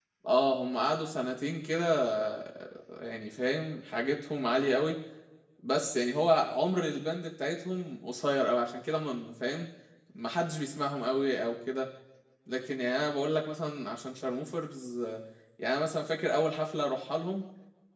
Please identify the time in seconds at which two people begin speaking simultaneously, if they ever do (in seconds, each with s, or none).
none